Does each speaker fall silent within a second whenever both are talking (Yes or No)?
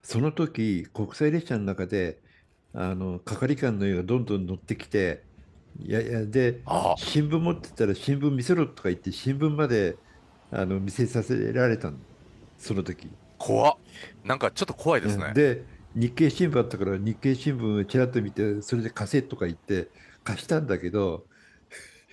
Yes